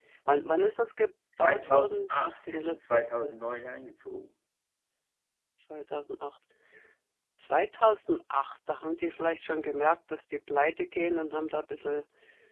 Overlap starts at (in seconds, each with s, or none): 1.4 s